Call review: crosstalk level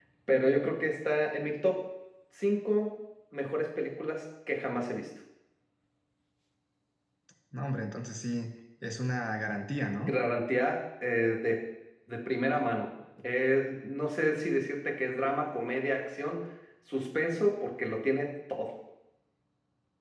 none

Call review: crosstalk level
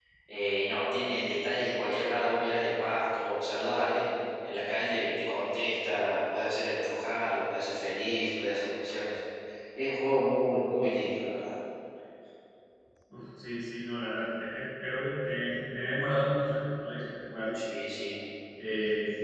none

